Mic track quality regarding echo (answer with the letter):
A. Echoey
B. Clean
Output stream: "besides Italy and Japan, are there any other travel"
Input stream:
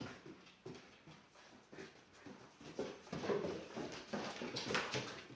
B